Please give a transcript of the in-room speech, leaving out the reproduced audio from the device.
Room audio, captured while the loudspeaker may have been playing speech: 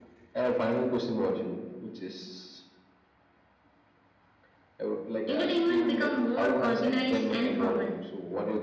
entertainment became more organized and formal

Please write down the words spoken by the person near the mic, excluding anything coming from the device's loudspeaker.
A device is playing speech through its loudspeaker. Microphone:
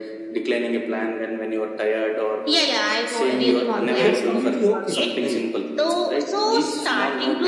and th- that's completely okay, right?

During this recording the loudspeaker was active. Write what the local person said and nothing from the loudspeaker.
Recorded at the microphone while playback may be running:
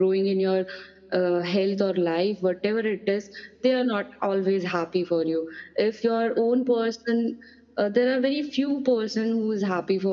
none

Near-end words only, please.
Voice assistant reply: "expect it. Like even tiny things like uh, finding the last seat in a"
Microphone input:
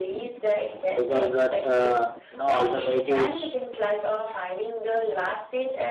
because that uh, you know alternative is

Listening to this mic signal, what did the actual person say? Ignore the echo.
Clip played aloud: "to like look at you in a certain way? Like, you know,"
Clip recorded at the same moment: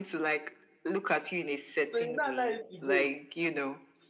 So you now allow him to go

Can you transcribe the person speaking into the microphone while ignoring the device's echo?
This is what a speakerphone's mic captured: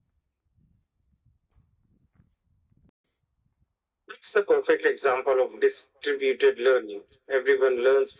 none

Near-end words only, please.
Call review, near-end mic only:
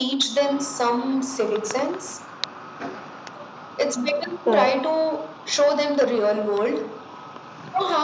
Hmm,

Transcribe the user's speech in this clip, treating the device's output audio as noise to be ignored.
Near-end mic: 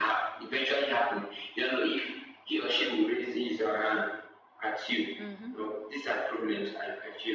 hmm

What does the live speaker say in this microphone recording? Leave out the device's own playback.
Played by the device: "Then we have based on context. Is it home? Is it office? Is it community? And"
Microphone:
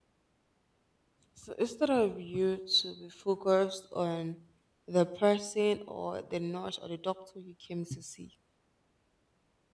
So instead of you to be focused on the person or the nurse or the doctor you came to see,

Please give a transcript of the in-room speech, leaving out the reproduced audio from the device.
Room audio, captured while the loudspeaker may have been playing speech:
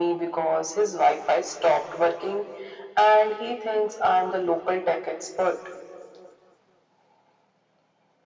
none

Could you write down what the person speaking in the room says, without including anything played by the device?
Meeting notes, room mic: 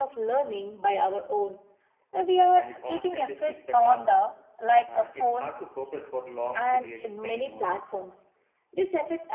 and we constantly switch the task and it's hard to focus for long periods anymore.

